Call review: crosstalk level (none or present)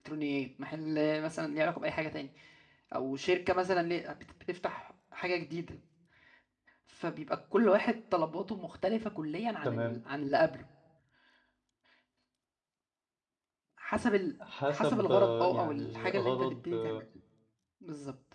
present